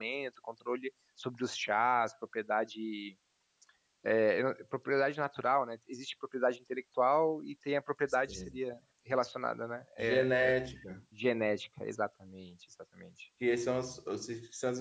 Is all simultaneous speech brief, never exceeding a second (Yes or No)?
Yes